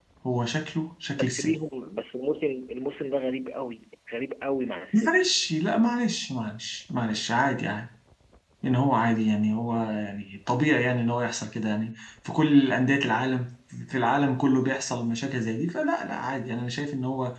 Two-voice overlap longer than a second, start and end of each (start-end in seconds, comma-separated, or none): none